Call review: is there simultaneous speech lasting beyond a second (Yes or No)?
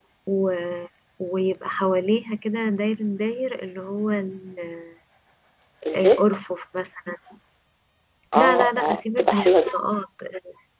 Yes